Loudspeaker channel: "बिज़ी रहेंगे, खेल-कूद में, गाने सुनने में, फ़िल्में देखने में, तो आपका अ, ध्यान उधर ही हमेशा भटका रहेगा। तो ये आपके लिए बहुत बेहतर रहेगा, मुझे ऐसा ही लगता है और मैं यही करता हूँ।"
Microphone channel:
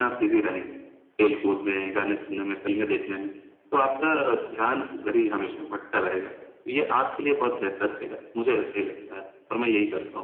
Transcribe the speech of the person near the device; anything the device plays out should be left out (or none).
none